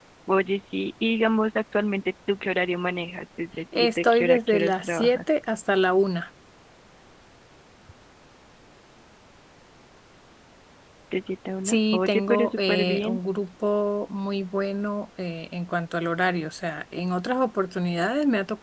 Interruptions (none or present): present